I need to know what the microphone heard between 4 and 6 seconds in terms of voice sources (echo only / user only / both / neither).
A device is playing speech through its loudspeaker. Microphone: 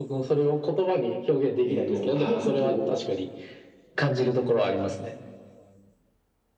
echo only